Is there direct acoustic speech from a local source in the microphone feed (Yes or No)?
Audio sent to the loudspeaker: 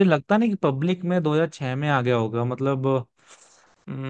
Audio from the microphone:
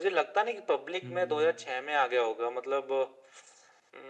Yes